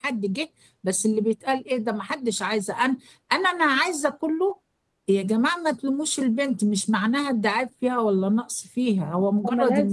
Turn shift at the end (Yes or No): No